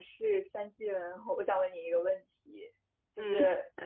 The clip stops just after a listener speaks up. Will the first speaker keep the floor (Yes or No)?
Yes